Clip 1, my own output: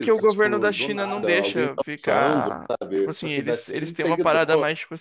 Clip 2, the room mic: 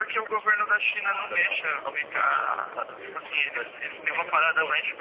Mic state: echo only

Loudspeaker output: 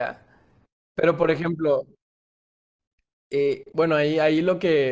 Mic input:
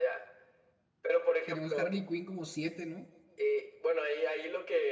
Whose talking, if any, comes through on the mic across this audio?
both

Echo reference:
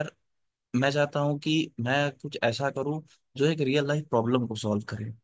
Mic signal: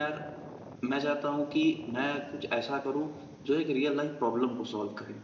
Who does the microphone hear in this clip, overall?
echo only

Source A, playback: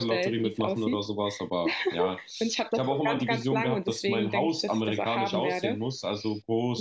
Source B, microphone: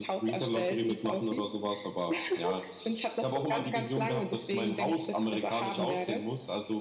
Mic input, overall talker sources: echo only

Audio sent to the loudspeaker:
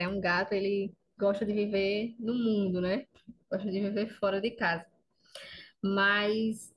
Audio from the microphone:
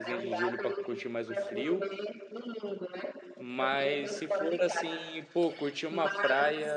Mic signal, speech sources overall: both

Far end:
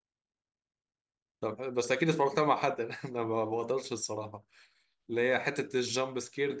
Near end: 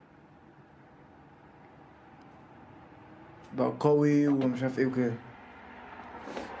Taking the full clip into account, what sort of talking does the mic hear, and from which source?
user only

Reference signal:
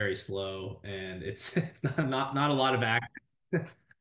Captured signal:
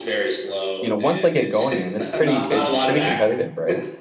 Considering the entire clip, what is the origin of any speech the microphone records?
both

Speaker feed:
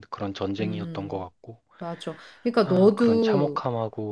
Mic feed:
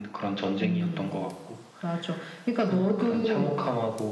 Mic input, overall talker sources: echo only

